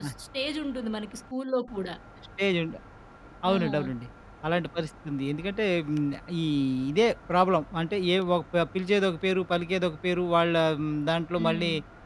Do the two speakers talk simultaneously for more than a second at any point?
No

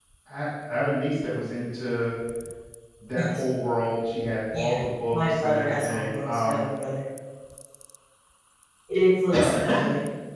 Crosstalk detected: Yes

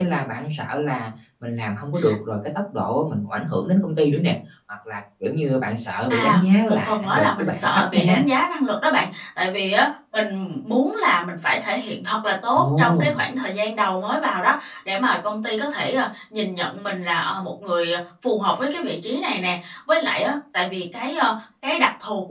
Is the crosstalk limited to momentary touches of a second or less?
No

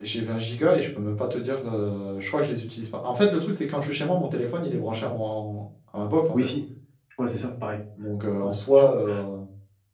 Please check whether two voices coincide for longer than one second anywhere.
No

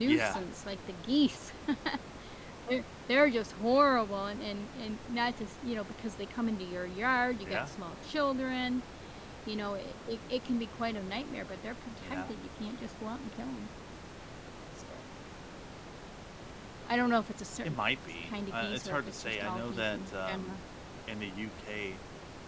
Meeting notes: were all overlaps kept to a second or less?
No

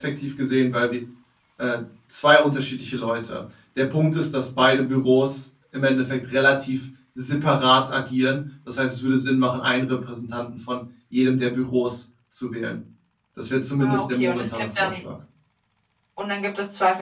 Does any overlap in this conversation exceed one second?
Yes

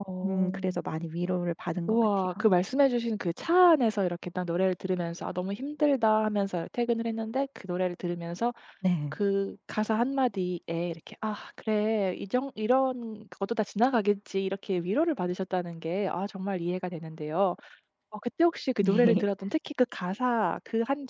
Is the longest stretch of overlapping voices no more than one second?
Yes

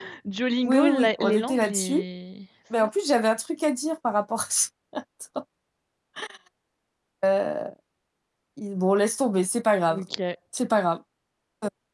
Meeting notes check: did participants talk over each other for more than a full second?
Yes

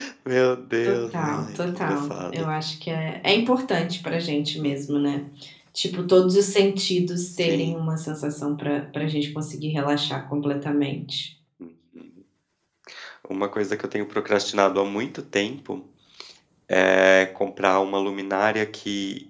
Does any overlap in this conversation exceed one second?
Yes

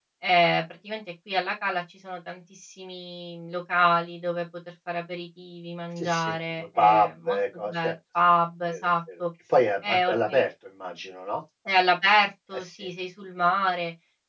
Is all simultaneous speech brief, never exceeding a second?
No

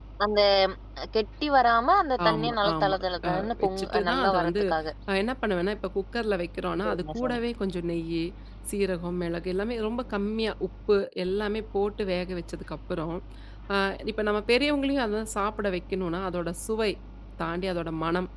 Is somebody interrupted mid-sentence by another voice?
Yes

